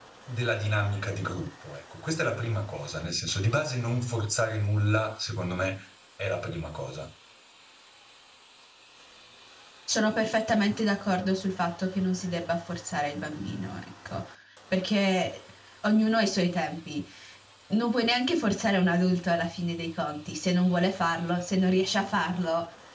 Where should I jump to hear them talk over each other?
none

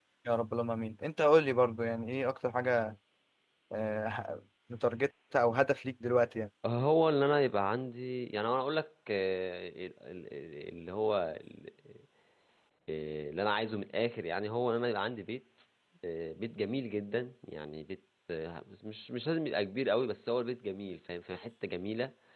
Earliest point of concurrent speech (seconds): none

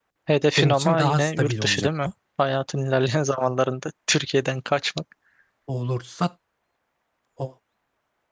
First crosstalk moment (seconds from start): 0.6 s

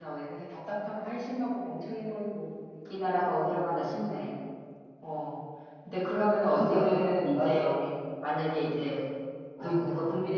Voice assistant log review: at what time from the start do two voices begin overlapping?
6.5 s

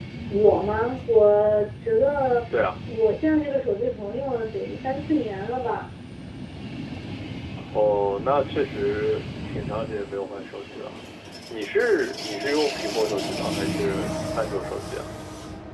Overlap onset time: none

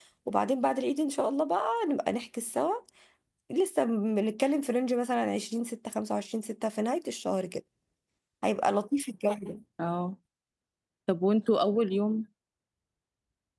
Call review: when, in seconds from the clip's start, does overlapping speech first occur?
none

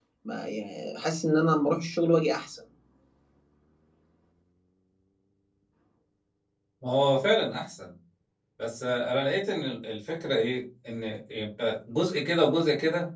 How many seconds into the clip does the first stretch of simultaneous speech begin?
none

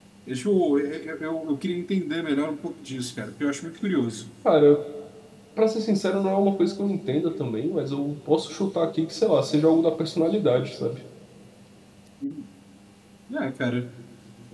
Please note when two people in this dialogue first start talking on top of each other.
none

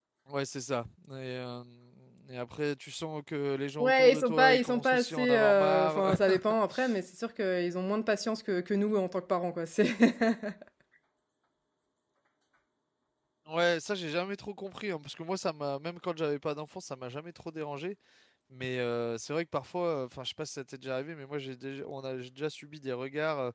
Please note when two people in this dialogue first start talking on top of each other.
3.8 s

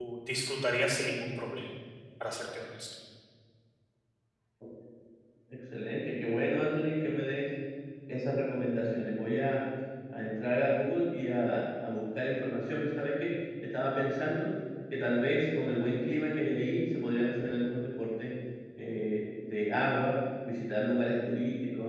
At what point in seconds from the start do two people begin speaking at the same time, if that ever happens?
none

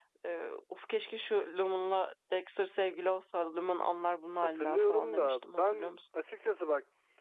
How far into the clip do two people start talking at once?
4.4 s

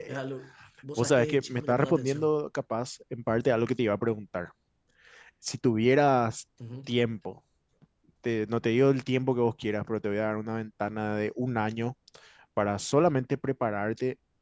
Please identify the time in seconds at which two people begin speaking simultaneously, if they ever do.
1.0 s

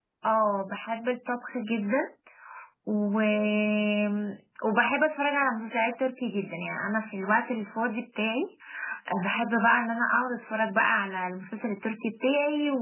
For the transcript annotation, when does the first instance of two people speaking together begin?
none

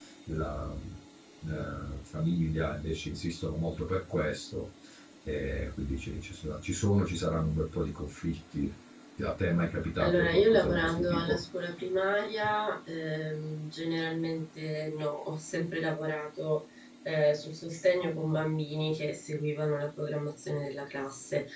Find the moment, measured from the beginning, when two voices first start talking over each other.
10.0 s

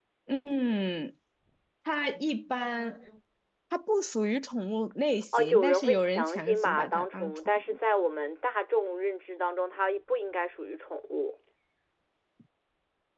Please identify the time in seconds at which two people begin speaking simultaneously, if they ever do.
5.3 s

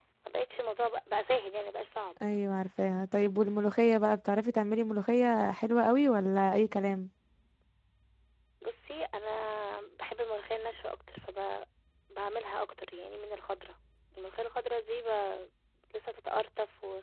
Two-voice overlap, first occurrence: none

